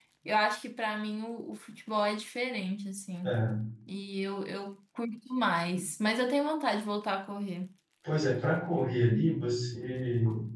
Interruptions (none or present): none